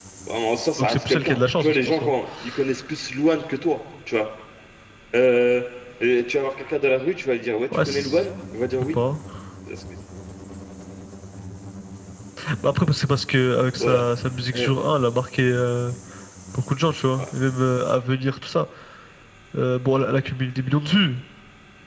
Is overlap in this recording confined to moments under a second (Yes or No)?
No